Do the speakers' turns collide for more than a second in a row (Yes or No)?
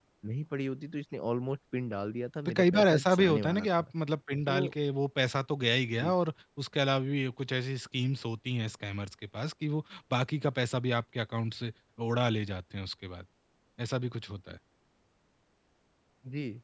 Yes